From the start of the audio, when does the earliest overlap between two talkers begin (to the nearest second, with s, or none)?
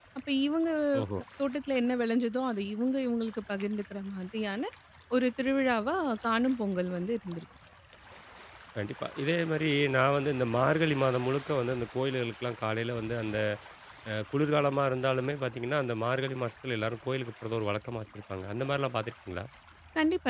none